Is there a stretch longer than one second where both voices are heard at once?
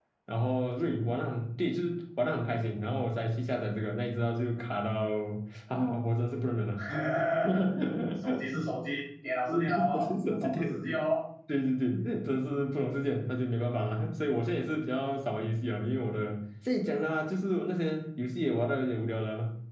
Yes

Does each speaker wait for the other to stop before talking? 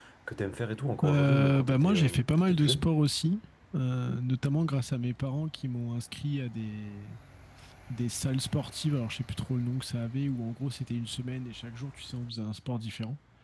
No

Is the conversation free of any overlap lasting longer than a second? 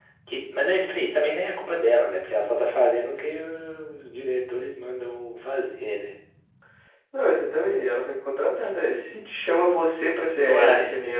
Yes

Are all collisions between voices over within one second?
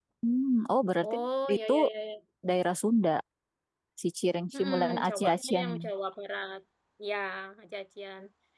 No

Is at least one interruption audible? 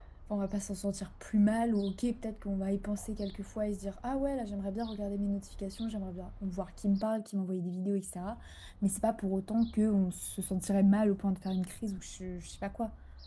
No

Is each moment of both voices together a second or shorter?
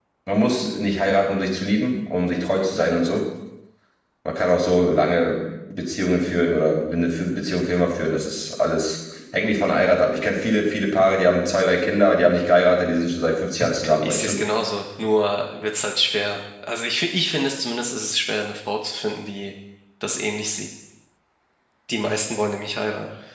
Yes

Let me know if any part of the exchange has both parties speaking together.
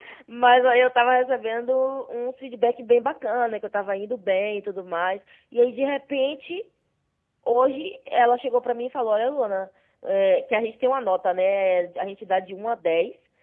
No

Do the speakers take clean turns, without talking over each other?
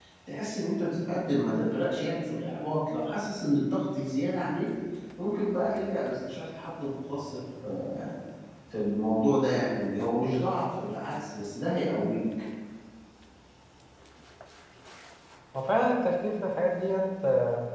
Yes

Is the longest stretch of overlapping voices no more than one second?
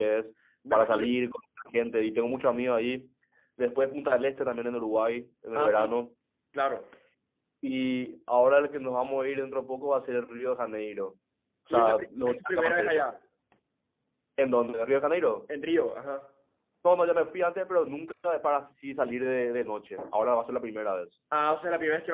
No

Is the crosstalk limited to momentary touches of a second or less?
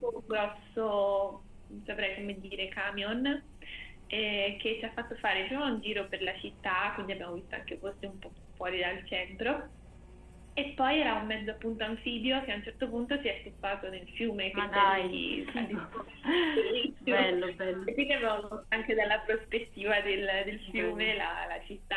No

